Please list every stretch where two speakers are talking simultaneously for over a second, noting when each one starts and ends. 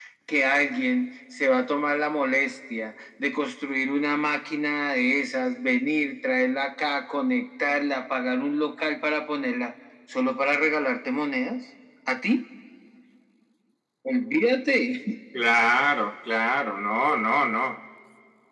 none

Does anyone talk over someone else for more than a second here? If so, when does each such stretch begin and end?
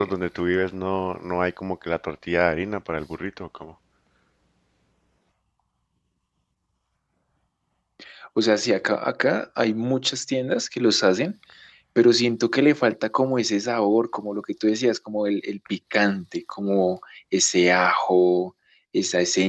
none

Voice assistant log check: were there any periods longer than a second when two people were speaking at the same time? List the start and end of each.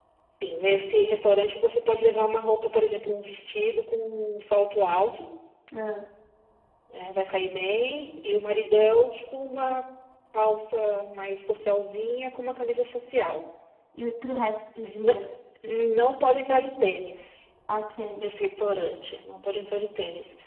none

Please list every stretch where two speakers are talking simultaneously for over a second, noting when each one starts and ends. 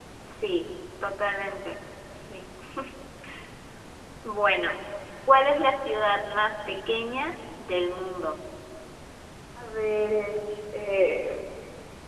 none

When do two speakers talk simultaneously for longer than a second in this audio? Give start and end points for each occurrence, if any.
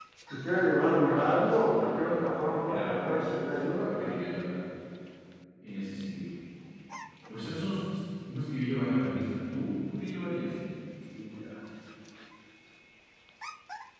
1.1-4.2

